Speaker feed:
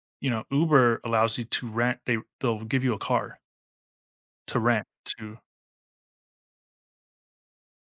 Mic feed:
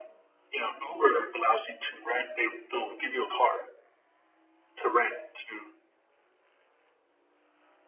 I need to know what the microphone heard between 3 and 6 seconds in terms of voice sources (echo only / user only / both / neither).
echo only